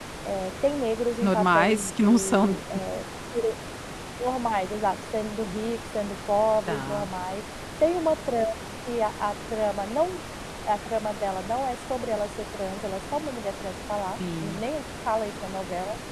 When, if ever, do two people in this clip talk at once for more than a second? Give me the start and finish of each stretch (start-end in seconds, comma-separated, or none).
1.2-2.5